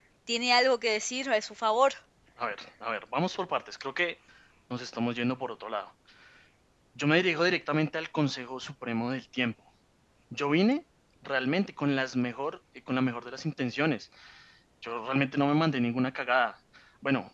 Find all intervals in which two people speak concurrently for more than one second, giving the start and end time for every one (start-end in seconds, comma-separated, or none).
none